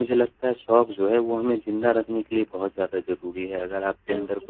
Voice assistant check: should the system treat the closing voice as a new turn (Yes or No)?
No